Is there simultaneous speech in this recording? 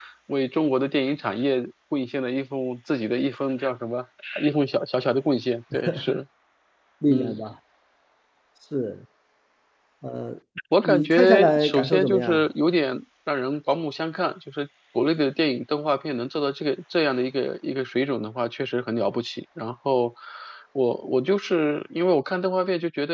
Yes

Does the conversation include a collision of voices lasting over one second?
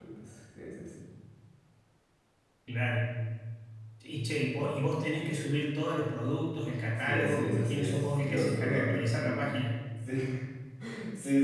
Yes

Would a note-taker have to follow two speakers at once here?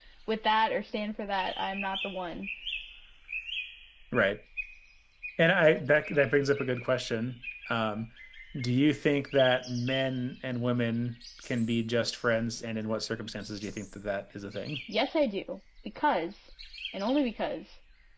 No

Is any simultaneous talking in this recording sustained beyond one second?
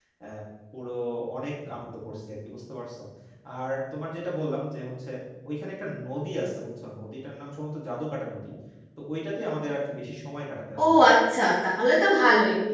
No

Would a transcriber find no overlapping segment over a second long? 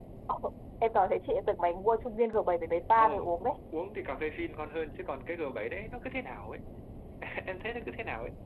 Yes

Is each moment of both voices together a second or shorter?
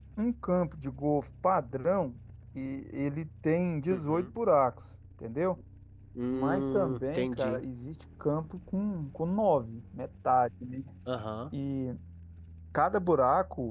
No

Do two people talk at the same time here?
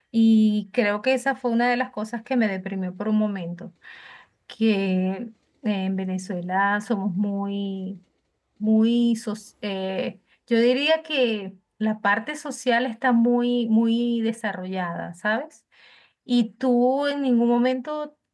No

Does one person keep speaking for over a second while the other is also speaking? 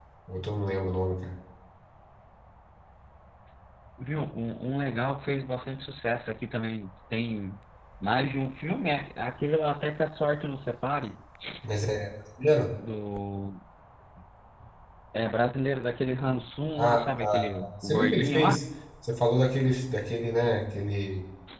Yes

